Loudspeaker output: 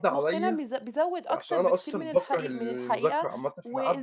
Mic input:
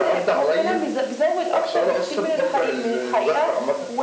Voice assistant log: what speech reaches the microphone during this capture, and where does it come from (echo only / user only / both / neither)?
echo only